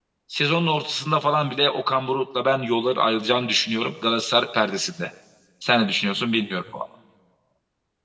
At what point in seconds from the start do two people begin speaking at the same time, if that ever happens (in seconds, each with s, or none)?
none